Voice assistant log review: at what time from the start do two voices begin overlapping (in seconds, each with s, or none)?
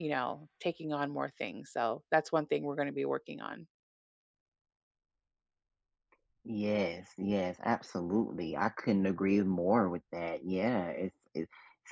none